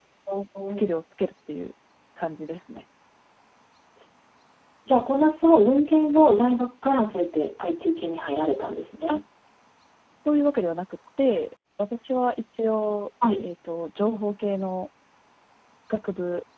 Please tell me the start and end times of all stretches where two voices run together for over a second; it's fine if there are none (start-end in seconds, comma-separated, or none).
none